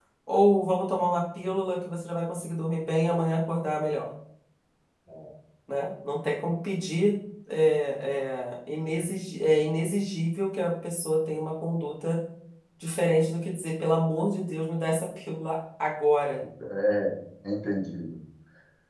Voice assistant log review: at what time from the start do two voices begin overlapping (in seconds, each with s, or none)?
none